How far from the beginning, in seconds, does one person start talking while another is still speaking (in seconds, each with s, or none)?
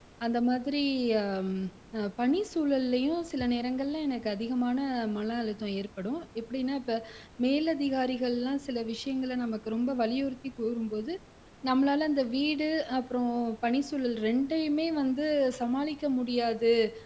none